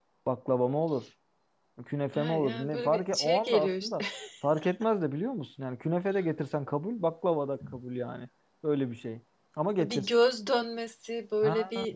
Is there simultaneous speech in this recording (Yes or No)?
Yes